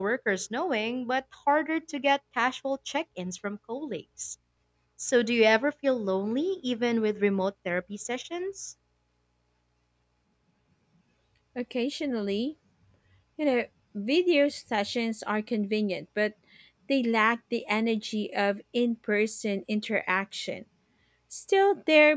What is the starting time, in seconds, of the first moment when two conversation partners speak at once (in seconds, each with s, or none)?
none